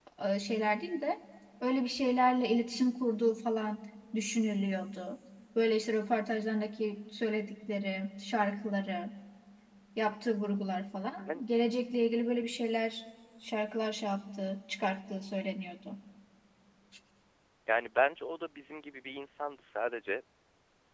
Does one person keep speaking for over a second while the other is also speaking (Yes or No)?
No